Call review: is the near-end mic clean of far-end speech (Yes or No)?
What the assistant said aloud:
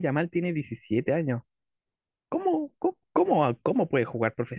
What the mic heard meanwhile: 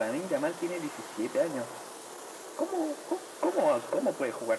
No